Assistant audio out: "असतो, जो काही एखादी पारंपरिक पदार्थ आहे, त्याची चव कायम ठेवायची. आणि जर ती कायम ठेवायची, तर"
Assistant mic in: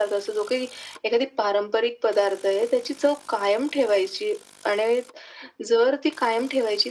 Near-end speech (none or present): none